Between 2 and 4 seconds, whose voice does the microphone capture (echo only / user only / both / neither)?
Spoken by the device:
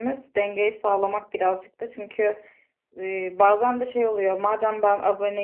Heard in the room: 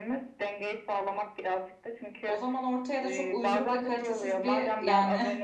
both